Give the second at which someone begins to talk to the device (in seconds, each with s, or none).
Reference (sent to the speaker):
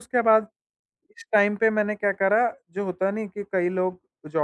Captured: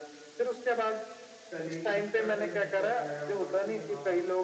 1.5 s